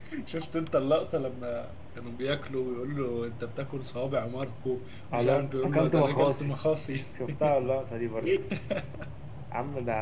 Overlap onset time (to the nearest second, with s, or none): 5 s